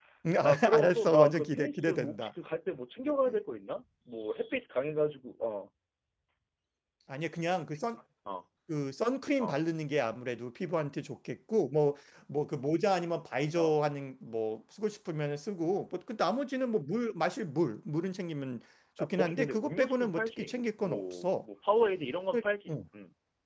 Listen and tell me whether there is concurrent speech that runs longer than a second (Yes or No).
Yes